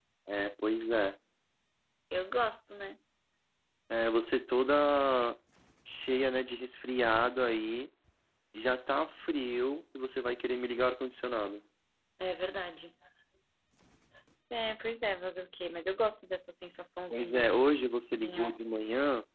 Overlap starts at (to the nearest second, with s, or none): 17 s